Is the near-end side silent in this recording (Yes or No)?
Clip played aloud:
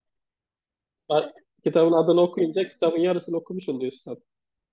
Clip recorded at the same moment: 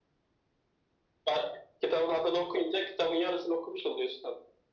Yes